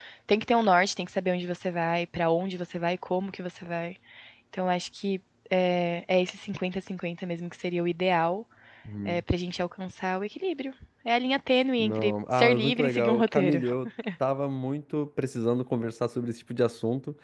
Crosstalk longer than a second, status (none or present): present